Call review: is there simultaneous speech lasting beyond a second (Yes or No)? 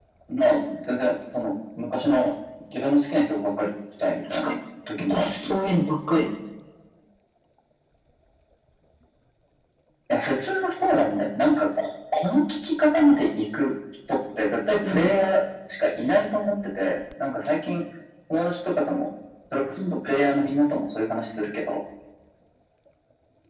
No